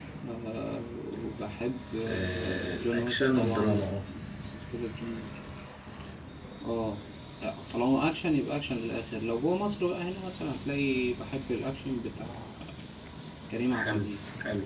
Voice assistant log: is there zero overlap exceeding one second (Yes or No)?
No